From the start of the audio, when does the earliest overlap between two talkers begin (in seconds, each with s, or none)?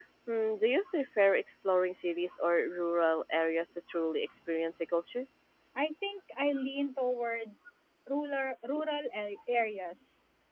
none